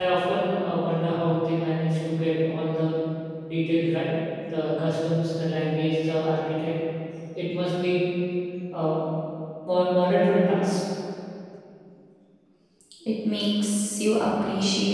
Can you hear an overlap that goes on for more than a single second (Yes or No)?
No